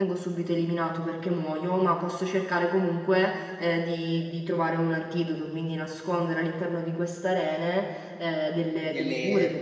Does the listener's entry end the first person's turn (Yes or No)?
Yes